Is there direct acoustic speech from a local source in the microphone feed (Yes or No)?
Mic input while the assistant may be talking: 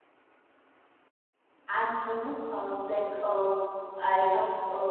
Yes